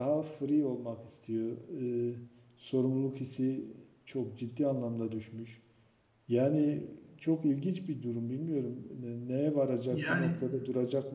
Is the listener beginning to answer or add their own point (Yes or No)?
No